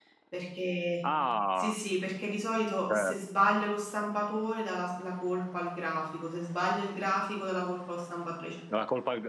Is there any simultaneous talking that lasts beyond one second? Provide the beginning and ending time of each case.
none

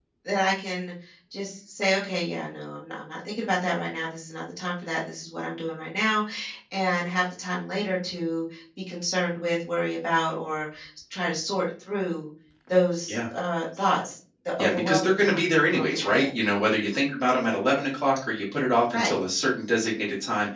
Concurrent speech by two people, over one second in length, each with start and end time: 14.6-16.2

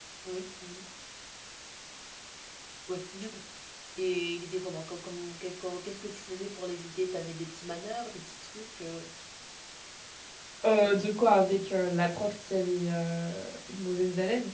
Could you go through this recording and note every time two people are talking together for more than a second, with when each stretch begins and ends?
none

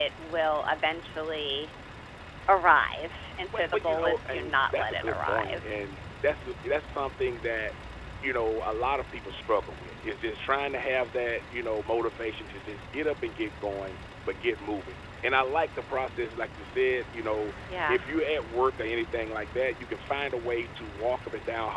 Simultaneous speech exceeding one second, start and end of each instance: 3.5-5.6

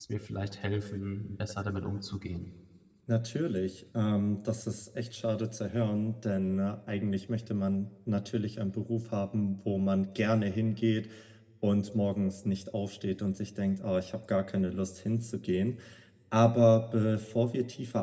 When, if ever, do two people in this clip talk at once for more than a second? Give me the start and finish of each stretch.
none

